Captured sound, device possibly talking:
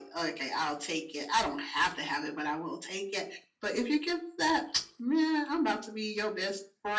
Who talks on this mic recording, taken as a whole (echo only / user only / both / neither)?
echo only